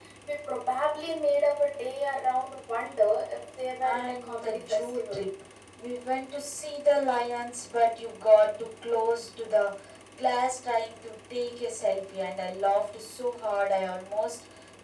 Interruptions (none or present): present